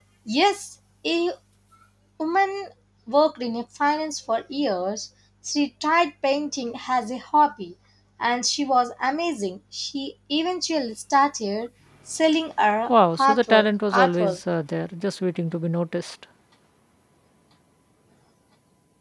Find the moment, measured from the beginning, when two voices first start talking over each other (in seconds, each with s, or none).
12.9 s